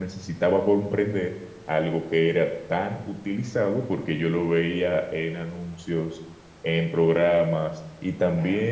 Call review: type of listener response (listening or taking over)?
listening